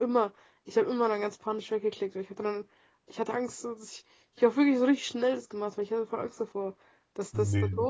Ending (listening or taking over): listening